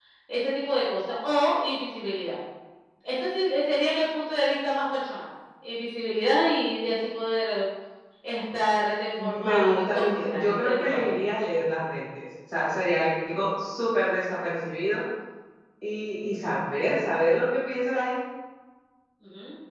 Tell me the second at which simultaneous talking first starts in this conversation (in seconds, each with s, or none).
9.2 s